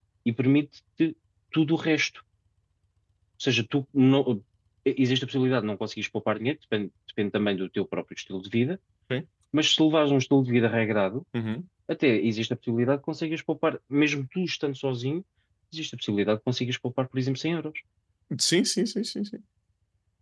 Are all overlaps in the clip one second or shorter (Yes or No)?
Yes